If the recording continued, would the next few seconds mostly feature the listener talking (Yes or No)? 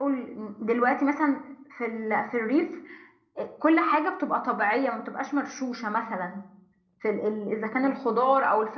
No